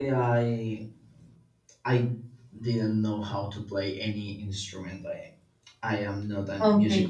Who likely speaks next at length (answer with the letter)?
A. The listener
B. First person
A